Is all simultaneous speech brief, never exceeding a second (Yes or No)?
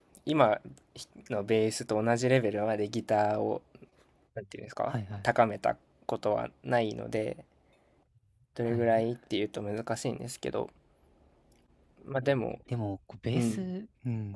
Yes